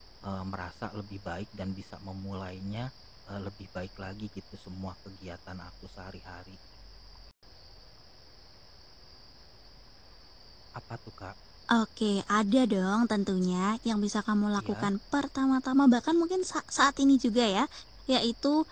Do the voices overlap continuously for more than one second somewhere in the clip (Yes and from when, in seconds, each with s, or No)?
No